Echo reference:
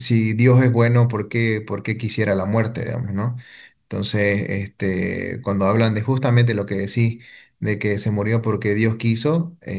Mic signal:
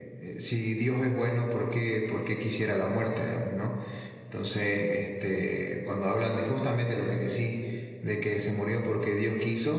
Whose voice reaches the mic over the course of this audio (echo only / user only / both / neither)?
echo only